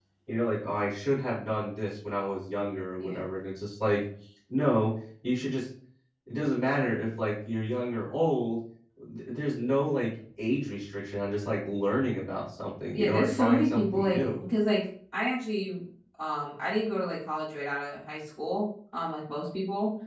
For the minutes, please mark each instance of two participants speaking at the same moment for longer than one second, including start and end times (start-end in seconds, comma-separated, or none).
12.9-14.4